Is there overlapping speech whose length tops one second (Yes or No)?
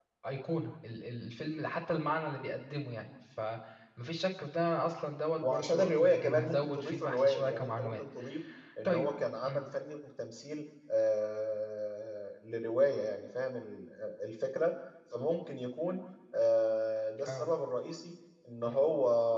Yes